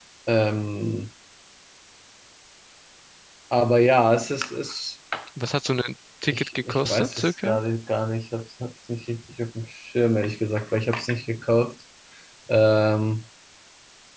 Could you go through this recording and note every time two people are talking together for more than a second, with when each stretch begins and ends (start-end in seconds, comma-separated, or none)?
6.3-7.6